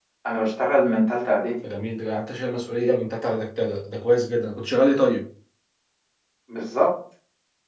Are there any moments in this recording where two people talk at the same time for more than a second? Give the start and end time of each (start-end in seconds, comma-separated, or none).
none